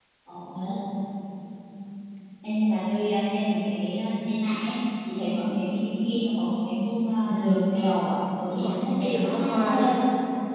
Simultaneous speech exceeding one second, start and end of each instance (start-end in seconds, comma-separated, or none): 8.5-9.9